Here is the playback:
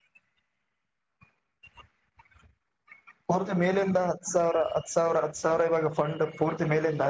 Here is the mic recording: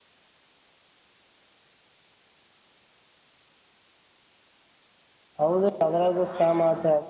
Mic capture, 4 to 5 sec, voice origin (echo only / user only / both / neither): neither